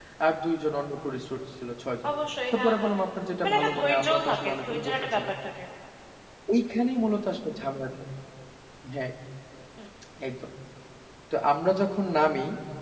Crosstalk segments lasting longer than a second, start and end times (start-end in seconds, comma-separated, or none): 3.4-5.2